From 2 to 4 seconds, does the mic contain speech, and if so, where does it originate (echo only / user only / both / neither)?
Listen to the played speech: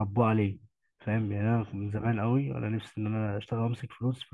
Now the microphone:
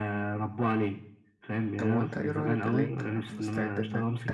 both